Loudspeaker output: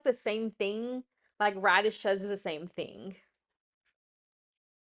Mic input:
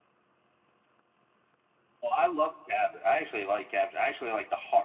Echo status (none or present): none